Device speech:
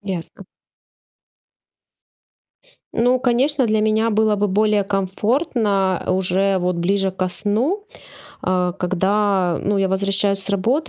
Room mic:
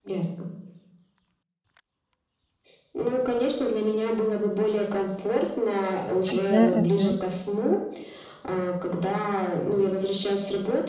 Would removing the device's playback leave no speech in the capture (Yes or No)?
No